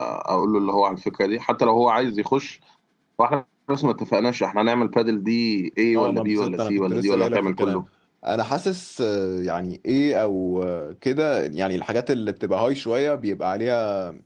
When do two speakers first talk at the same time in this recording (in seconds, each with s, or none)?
5.9 s